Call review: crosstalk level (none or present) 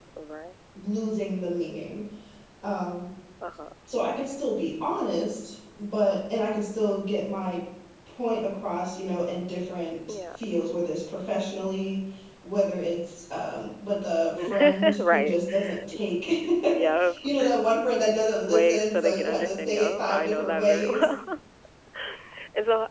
present